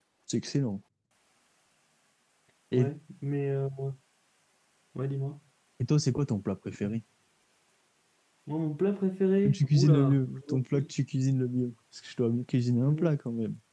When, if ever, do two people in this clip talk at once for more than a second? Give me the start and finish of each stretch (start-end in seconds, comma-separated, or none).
9.4-10.8